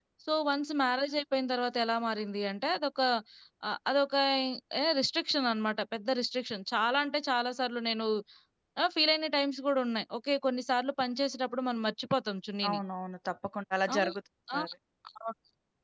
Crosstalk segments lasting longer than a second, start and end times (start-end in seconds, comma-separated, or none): none